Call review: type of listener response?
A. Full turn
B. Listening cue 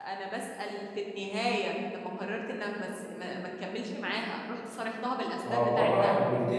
A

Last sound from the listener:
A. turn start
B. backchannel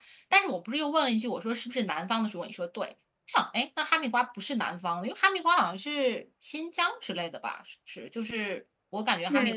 A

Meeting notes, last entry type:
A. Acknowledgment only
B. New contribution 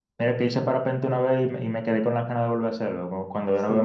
B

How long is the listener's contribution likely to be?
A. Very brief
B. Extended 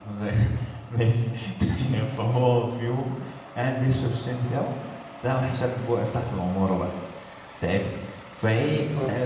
A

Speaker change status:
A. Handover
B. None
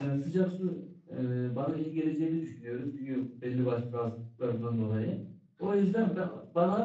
B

